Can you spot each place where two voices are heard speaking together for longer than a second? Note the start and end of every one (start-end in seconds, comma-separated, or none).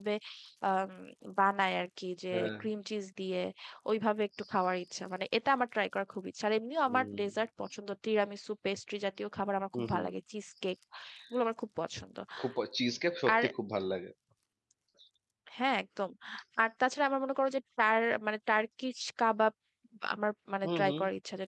none